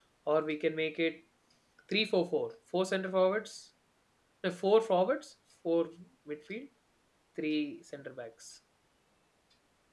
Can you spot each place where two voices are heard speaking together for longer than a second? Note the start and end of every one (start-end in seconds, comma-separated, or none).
none